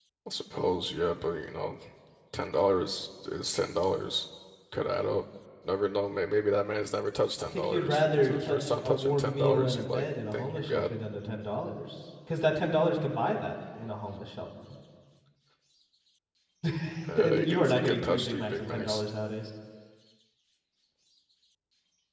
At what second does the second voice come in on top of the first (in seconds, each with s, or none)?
7.4 s